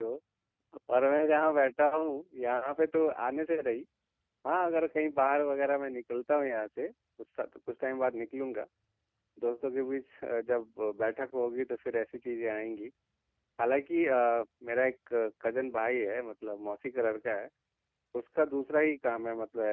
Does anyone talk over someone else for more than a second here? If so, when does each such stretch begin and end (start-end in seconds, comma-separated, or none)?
none